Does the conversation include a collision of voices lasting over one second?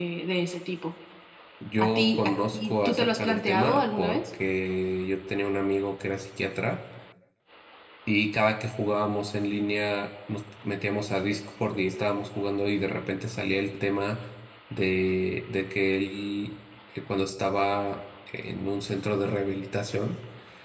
Yes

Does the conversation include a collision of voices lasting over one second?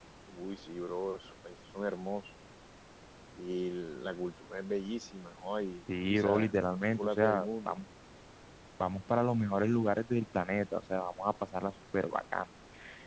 Yes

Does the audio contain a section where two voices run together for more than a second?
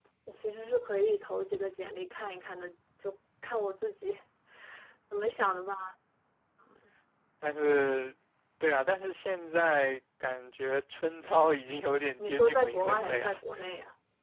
Yes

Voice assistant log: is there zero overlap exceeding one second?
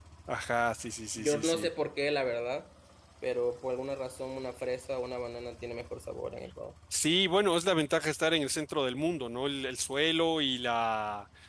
Yes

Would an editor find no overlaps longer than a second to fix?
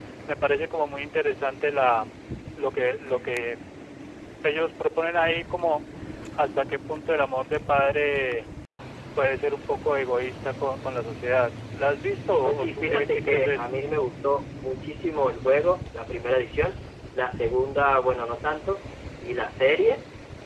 No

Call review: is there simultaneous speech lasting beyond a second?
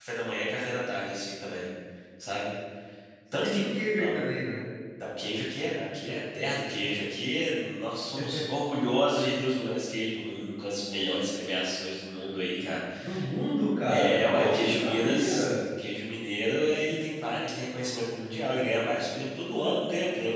Yes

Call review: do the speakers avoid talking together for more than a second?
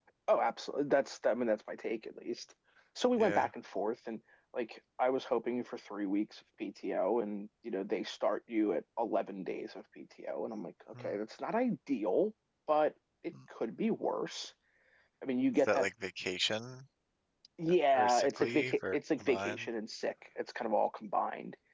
No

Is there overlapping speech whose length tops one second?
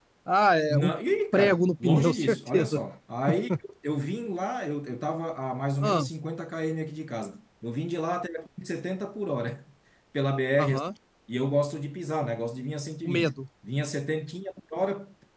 Yes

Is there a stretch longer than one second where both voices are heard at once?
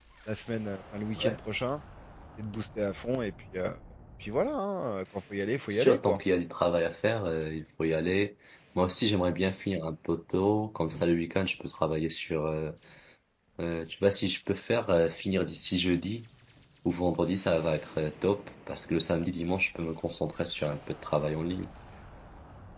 No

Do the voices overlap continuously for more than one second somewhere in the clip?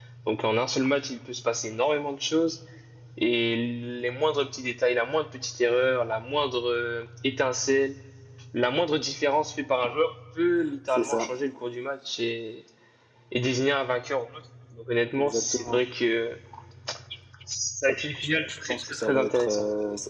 Yes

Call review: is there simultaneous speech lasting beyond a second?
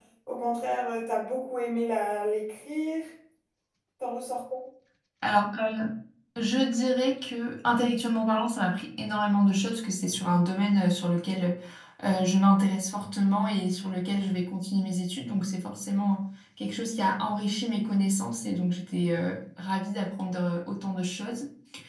No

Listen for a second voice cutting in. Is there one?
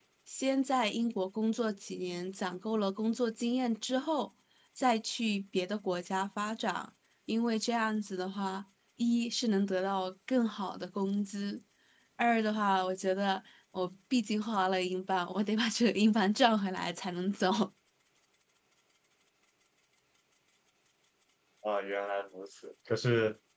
No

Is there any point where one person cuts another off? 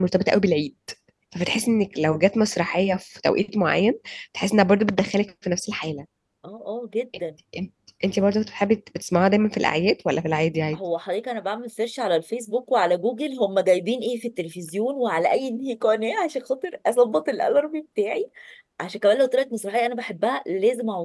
No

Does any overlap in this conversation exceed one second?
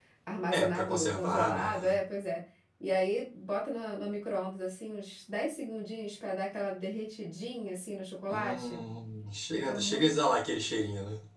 Yes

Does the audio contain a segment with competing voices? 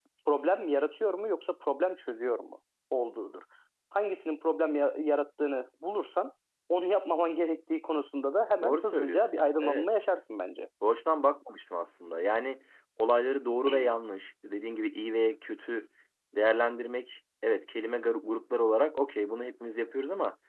Yes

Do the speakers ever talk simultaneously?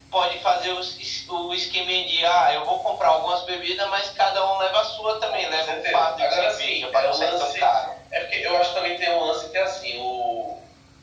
Yes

